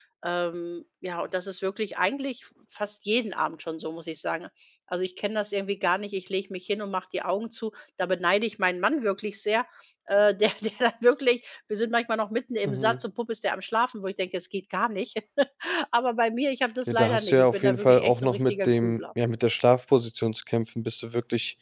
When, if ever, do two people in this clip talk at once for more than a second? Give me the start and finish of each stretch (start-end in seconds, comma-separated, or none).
16.9-19.0